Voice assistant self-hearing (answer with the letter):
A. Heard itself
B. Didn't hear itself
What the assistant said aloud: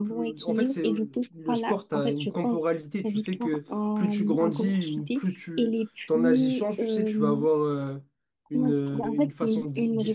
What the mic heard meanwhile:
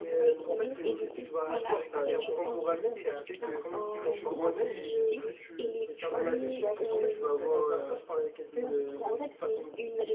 A